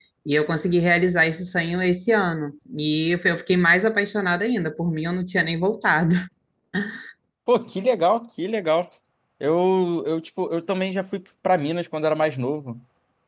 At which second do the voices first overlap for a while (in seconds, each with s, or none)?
none